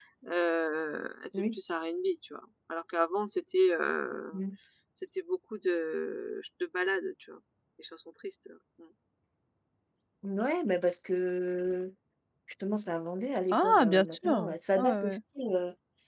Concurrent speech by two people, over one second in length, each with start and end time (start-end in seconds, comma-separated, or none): 13.5-15.2